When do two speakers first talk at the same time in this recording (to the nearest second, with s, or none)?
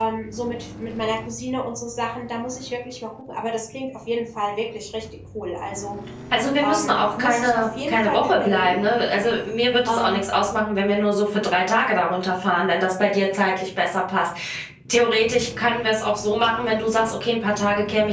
7 s